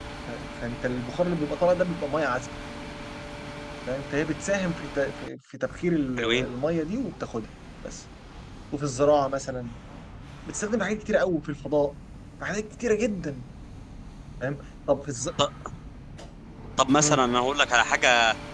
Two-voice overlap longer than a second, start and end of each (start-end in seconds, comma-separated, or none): none